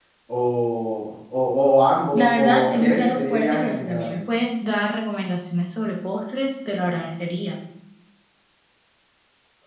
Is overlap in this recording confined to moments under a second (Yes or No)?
No